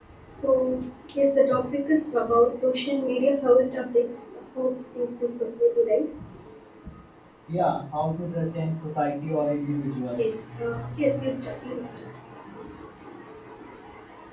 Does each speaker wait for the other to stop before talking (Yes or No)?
Yes